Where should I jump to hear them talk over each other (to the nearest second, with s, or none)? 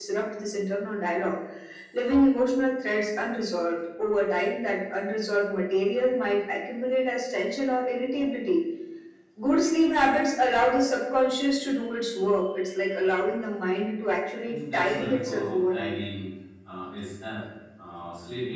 14 s